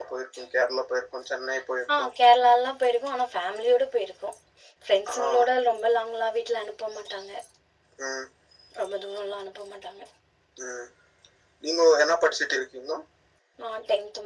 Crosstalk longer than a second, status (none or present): none